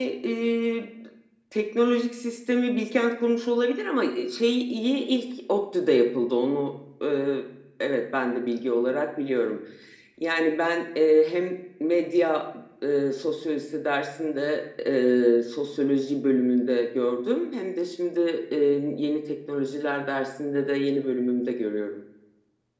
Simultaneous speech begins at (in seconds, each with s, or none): none